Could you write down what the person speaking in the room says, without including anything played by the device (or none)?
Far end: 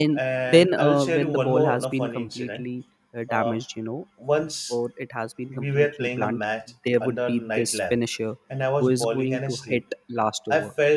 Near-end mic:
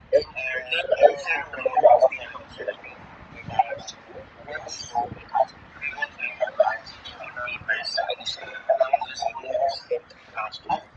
none